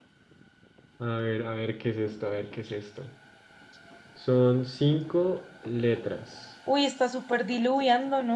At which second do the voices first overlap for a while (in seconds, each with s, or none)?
none